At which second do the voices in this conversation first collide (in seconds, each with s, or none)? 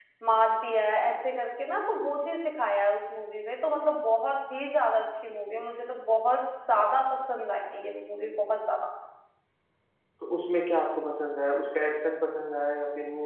none